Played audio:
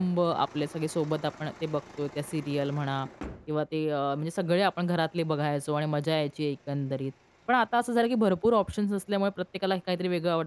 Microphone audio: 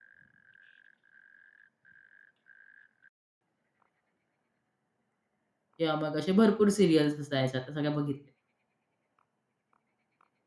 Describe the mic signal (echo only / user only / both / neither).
user only